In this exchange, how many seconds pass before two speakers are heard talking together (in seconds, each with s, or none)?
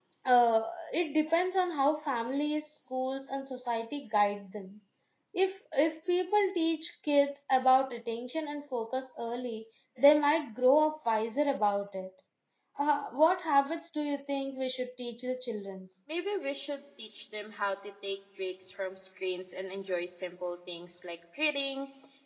none